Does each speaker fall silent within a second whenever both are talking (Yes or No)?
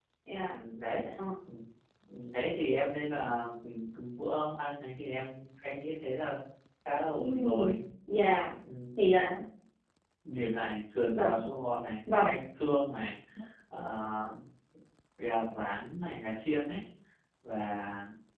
Yes